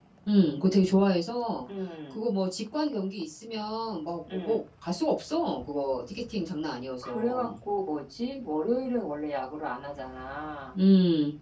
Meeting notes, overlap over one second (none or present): none